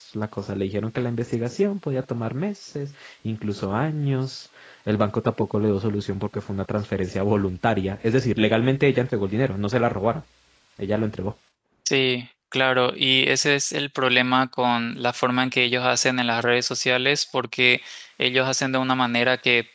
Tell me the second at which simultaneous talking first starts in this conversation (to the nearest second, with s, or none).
none